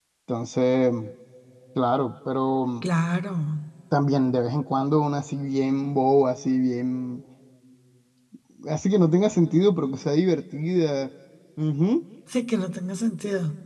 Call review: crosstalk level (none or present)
none